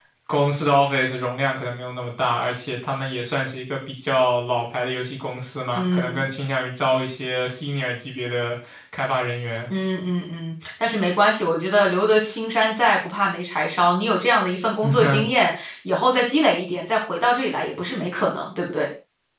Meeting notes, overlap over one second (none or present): none